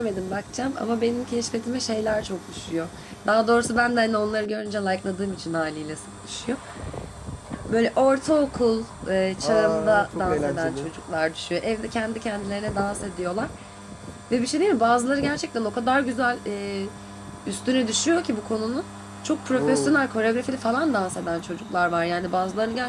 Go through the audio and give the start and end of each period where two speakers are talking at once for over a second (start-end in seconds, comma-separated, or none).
9.4-10.9